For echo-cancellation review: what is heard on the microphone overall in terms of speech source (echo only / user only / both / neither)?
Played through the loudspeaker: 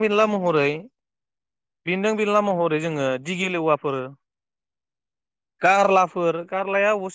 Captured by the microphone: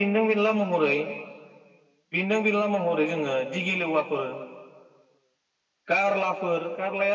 echo only